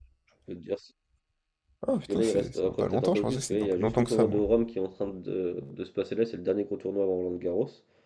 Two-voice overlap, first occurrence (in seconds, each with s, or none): 2.1 s